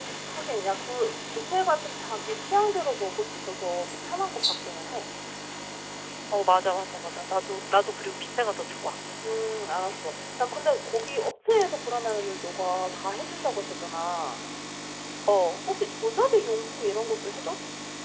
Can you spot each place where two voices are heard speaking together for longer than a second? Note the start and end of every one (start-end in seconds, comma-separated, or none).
none